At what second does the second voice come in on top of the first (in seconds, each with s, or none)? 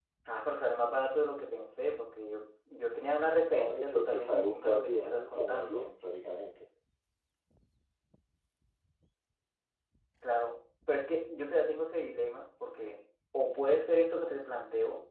3.2 s